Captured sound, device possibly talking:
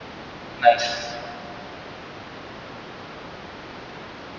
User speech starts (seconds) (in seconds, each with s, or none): 0.6 s